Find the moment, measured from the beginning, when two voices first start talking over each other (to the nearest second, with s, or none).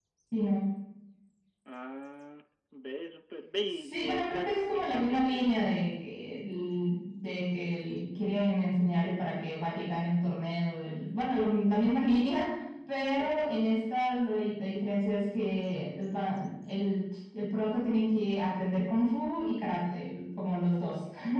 4 s